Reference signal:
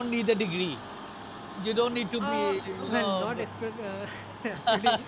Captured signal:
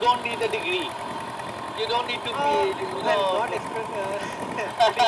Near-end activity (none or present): none